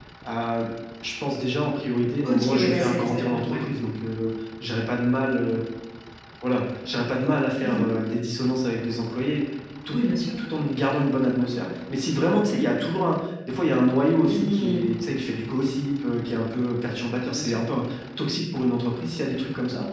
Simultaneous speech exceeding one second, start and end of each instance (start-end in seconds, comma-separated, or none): 2.2-3.6